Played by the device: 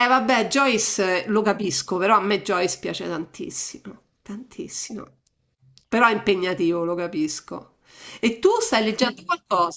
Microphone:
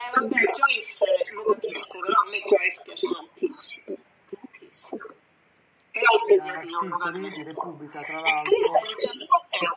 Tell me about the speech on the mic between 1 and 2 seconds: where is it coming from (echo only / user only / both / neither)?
echo only